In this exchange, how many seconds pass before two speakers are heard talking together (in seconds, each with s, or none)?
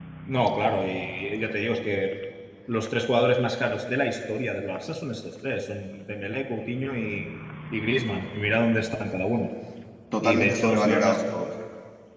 10.2 s